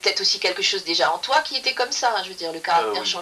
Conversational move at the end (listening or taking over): listening